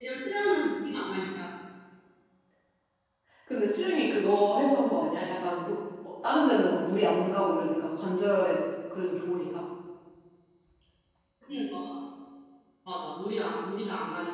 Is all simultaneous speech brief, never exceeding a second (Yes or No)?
Yes